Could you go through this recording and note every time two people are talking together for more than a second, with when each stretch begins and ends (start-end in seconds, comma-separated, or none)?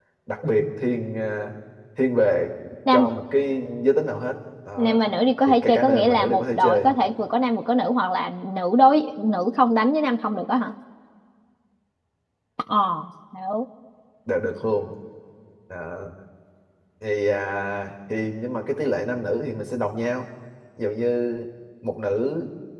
5.5-6.9